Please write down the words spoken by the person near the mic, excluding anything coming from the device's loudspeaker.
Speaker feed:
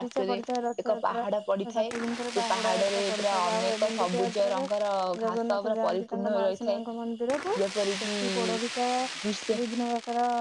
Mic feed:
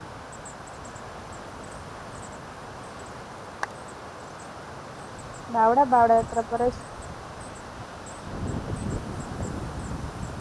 ବାହୁଡା ବାହୁଡା ଯାତ୍ରା ପରେ

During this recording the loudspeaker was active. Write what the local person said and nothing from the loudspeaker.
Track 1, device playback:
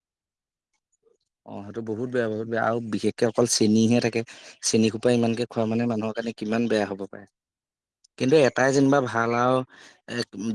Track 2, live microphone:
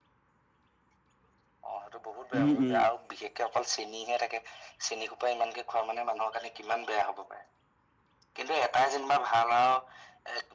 উম, উম,

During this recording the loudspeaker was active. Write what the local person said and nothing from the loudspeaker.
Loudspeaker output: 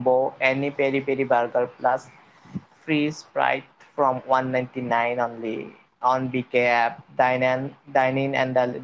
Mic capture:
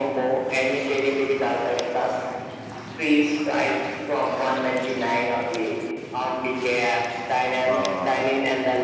অ'হ।

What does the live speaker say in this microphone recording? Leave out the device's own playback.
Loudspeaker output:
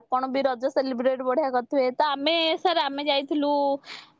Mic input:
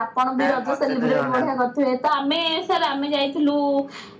ନା ମତେ ତ ଜଣା ନାହିଁ।

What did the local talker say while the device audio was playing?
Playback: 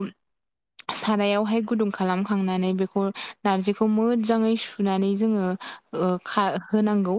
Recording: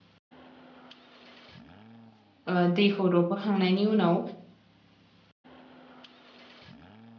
ओ दैखौ रबहोखांनायनि उनाव

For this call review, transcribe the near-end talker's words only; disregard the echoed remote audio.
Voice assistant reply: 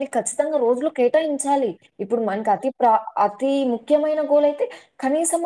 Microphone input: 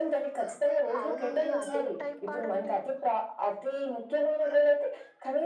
అవునండి అదేం టైం పాడండి

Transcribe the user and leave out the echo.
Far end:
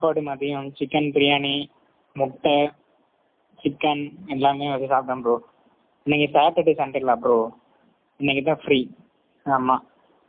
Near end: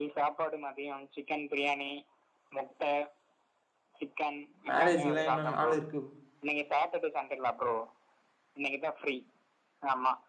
மேரேஜ்க்கு எல்லா இன்னு நாள் இருக்

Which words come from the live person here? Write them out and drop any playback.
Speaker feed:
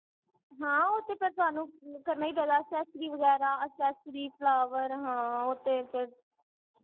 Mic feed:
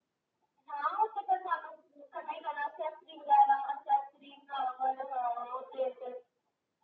none

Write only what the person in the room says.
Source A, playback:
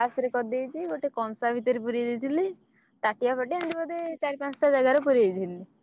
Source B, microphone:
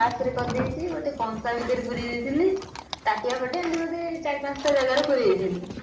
none

